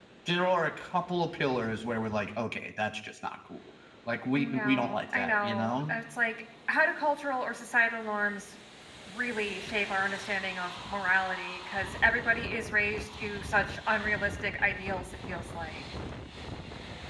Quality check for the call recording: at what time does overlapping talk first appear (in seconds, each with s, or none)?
4.4 s